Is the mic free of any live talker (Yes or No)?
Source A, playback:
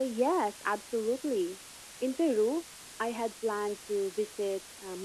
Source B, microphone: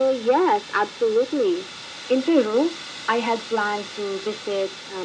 Yes